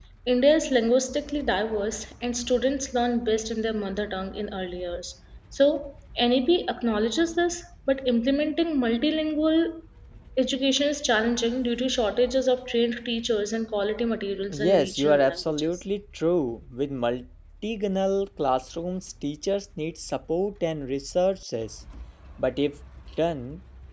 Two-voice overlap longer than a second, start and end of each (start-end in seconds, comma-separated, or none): 14.5-15.8